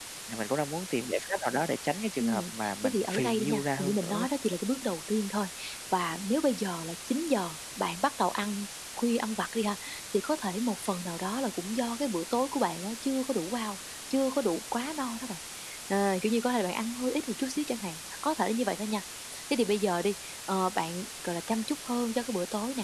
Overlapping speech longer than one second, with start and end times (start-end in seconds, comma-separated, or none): 2.2-4.2